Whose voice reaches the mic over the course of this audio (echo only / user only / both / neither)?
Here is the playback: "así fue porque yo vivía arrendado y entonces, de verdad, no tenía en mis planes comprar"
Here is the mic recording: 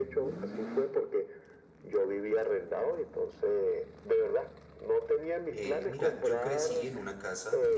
both